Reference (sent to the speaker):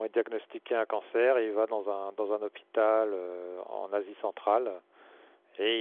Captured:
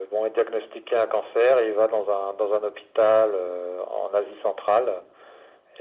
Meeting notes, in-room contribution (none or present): none